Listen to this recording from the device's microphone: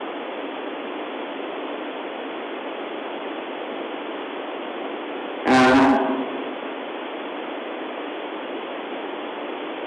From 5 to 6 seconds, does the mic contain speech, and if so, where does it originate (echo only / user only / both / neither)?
user only